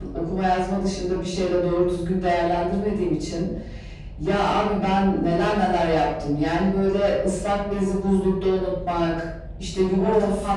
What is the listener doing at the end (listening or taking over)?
listening